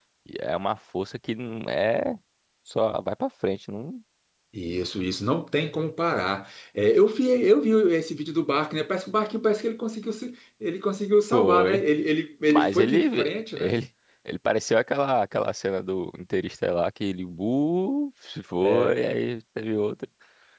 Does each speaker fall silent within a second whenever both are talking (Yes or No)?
No